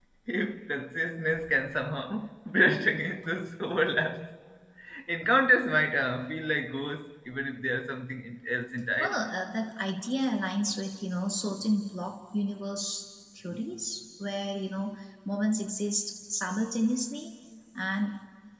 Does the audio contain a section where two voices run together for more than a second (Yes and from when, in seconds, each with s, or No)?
No